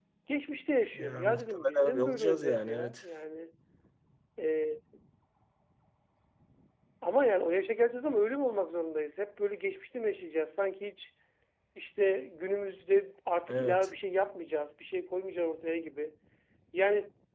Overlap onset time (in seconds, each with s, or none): 1.0 s